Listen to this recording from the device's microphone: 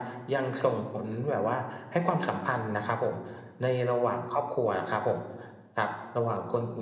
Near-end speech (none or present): none